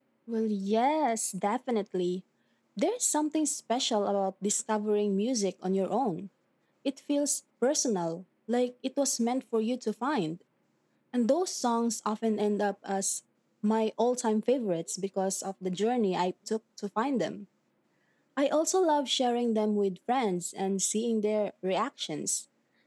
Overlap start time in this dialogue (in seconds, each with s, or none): none